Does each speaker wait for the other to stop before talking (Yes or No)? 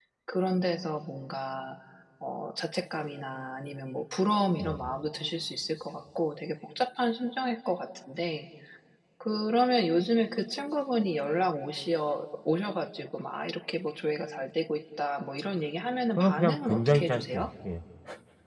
No